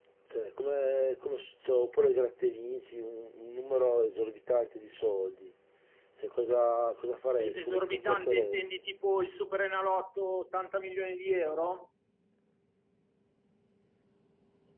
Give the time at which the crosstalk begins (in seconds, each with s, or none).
7.4 s